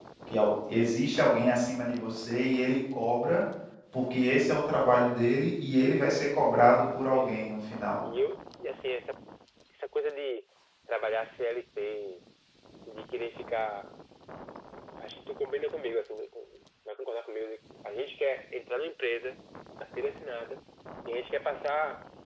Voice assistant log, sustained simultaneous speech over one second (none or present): none